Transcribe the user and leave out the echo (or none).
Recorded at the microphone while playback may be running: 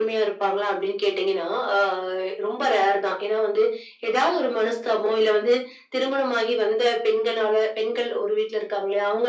none